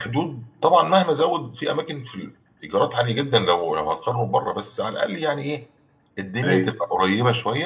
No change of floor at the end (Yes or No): Yes